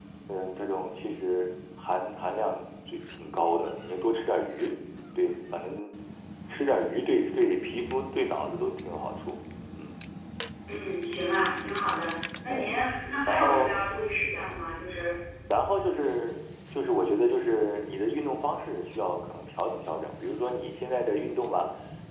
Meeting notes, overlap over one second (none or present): none